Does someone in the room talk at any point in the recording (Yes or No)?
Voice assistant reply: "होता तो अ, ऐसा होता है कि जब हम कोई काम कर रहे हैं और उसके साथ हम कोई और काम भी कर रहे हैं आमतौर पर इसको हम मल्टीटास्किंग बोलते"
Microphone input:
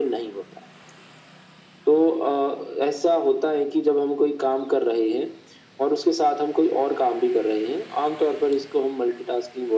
No